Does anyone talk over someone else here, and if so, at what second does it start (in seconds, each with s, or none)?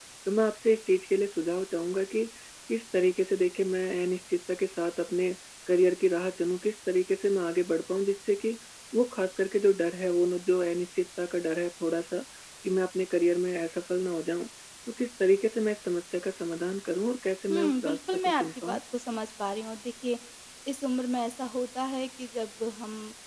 17.5 s